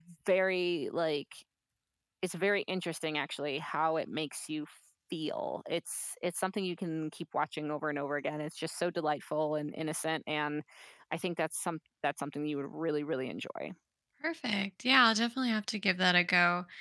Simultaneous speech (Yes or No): No